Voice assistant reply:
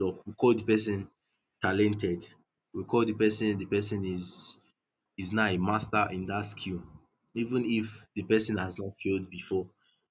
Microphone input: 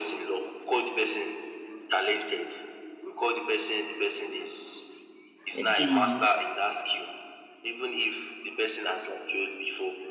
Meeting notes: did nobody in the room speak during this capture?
No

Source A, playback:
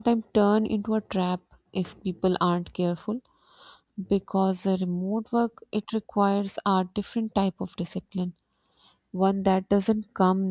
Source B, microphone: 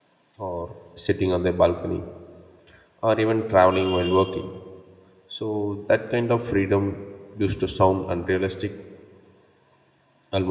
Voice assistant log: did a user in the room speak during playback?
Yes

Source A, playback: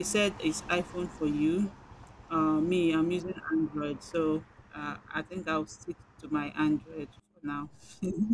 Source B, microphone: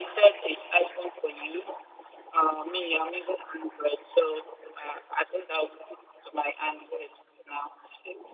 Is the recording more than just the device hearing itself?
No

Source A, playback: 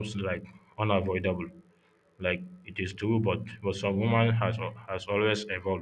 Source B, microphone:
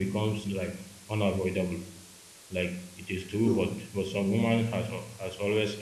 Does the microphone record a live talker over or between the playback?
Yes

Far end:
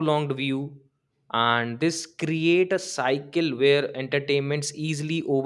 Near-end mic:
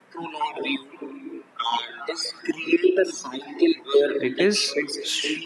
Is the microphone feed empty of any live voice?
No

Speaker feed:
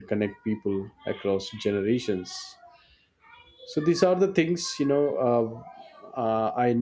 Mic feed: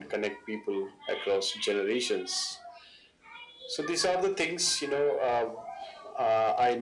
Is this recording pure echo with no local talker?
Yes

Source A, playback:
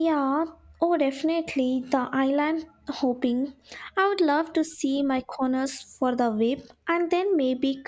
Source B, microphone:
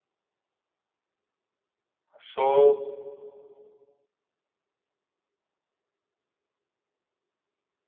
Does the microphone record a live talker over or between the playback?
Yes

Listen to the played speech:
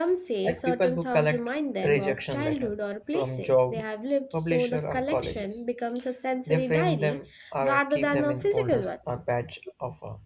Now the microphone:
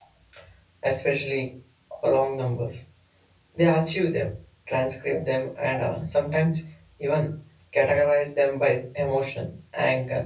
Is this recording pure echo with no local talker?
No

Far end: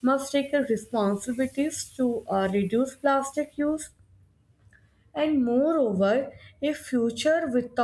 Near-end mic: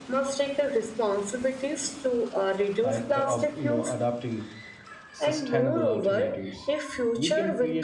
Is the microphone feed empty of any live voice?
No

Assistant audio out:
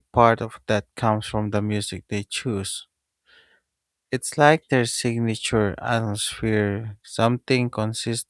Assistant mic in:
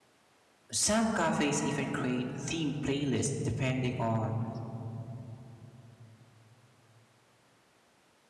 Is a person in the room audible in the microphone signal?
Yes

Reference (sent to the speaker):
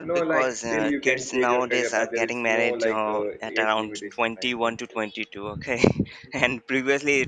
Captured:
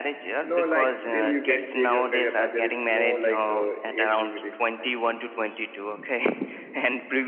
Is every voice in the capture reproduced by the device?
Yes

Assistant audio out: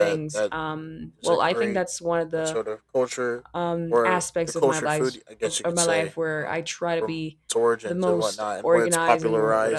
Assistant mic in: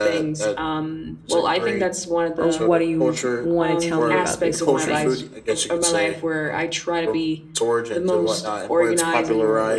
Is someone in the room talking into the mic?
Yes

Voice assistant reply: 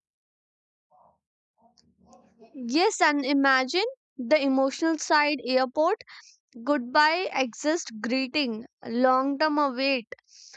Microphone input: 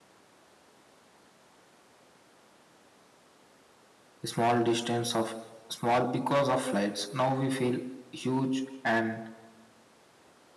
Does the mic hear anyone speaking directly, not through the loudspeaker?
Yes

